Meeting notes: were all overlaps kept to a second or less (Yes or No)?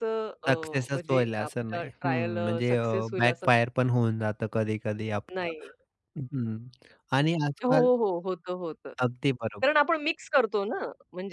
No